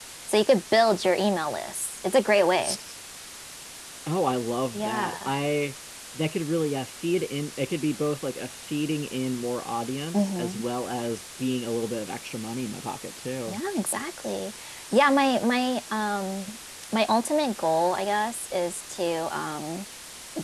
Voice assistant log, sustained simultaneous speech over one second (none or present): none